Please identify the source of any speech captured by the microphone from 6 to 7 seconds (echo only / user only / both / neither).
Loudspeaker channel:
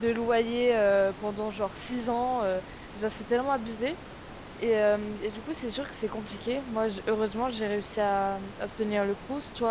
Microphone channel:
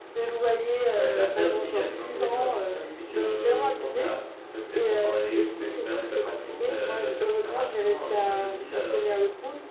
both